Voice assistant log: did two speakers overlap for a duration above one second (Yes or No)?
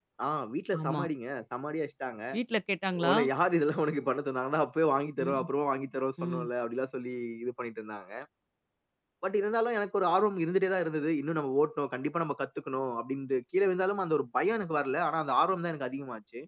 No